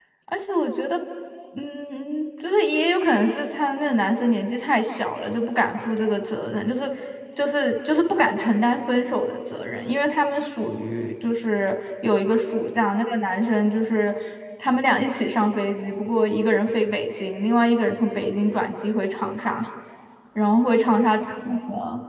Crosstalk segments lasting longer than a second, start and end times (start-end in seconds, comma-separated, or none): none